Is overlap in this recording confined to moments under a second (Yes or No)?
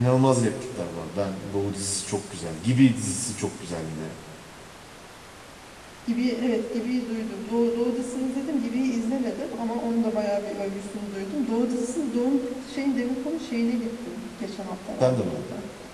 Yes